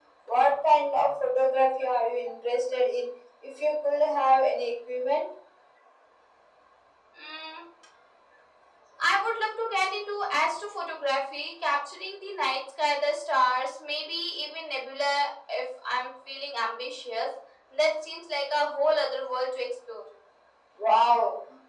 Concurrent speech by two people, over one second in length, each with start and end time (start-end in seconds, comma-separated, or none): none